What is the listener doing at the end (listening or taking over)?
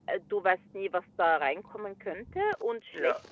listening